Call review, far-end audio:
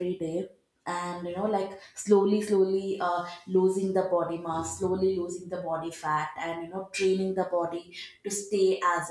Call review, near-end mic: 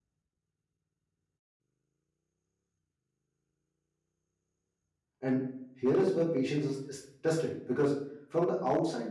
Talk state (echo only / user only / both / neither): user only